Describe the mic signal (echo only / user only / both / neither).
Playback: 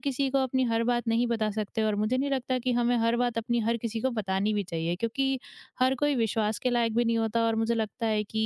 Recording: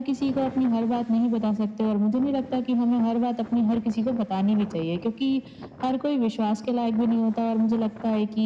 echo only